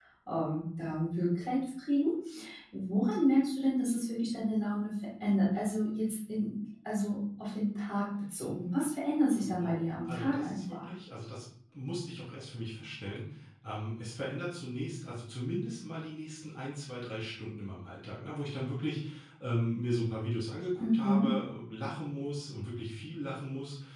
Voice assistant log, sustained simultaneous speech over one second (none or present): present